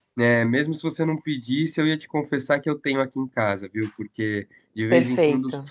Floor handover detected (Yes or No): No